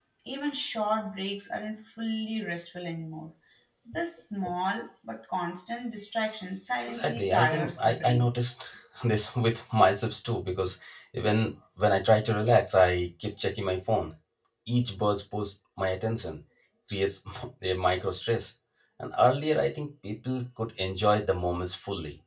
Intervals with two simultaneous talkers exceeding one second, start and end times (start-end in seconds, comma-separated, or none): 6.8-8.2